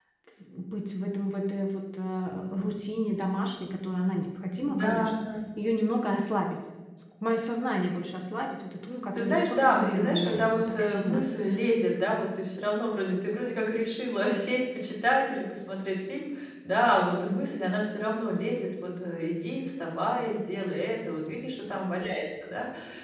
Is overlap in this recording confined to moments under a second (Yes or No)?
No